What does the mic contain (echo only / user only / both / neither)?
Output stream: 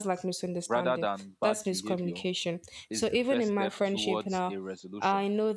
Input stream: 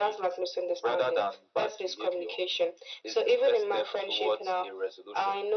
echo only